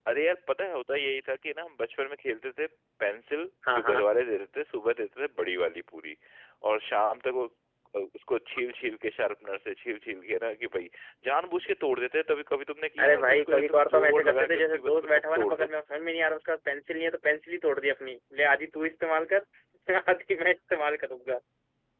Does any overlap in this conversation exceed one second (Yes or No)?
Yes